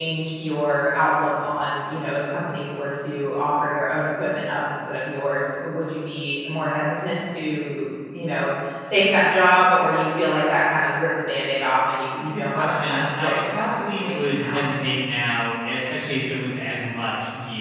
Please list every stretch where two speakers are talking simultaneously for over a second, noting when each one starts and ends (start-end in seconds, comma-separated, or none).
12.2-14.6